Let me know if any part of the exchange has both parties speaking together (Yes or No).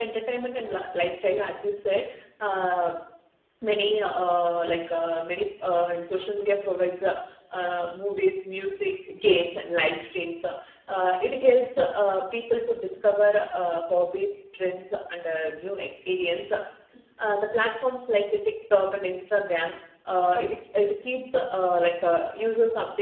No